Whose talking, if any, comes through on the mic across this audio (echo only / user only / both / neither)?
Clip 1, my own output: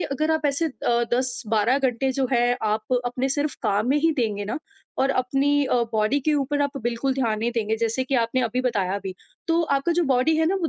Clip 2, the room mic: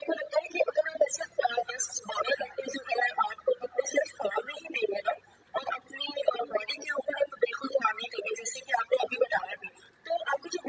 echo only